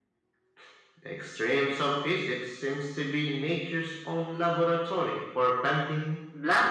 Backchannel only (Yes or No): No